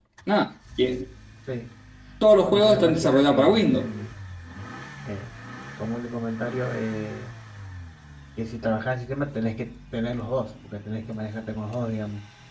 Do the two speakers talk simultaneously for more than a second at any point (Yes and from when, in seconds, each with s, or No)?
Yes, from 2.5 s